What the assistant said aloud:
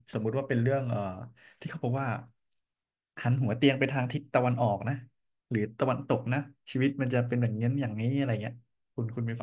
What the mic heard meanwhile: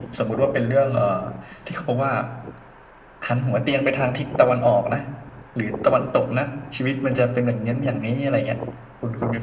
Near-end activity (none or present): none